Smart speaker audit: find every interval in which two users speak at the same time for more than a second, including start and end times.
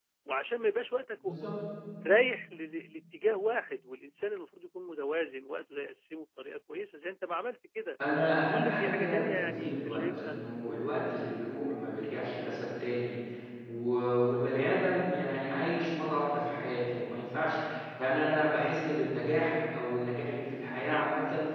8.5-10.4

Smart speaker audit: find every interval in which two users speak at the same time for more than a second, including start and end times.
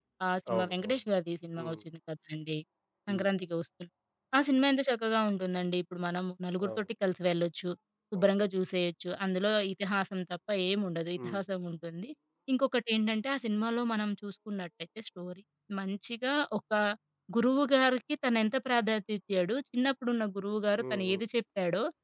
none

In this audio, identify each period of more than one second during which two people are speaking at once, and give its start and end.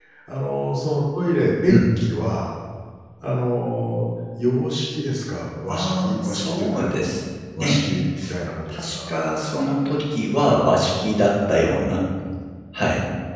5.7-7.0

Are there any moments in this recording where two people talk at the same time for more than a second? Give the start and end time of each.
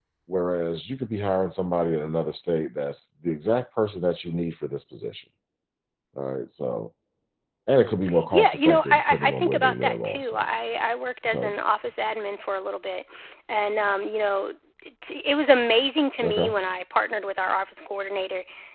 8.3-10.5

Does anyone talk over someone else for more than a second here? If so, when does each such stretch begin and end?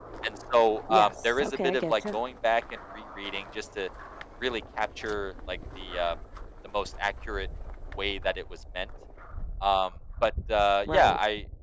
0.9-2.2

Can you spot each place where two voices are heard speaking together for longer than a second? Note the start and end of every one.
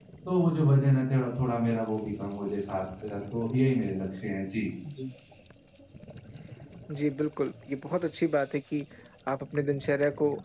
none

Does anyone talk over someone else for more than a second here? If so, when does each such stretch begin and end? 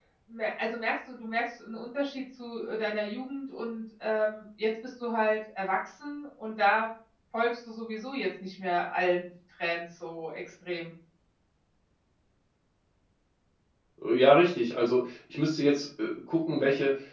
none

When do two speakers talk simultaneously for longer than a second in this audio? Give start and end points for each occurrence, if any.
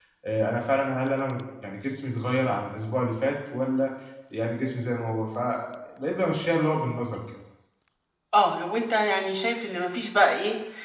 none

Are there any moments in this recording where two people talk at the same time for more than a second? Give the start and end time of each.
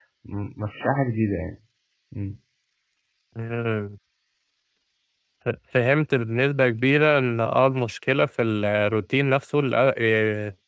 none

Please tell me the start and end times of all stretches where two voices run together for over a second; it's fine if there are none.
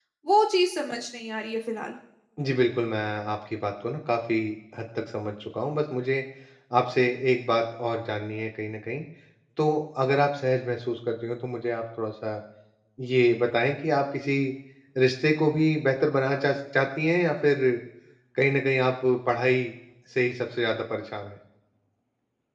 none

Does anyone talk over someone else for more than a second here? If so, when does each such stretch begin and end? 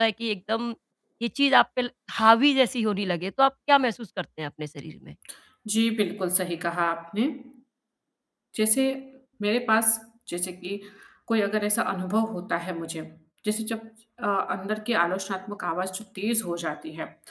none

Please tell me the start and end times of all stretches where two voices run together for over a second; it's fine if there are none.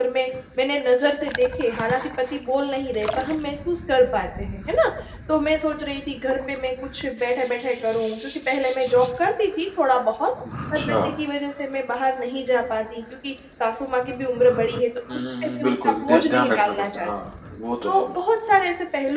15.1-17.1

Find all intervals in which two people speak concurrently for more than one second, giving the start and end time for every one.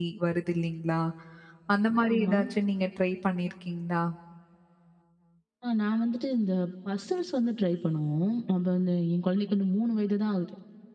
none

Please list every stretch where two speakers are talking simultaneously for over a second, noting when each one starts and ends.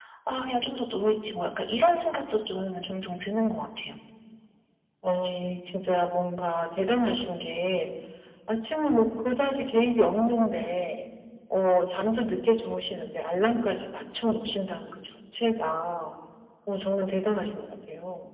none

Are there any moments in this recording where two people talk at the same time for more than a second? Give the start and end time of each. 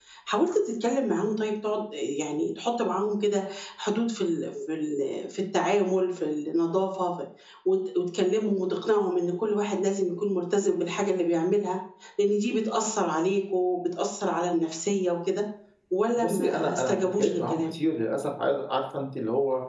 16.2-17.7

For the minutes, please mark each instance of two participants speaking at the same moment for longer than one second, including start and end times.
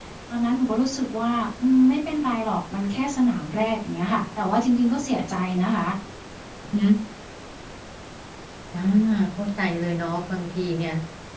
none

